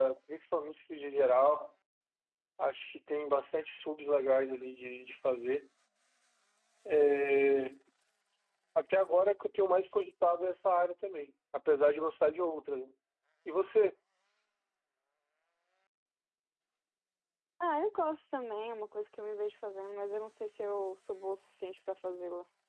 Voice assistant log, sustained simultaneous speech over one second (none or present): none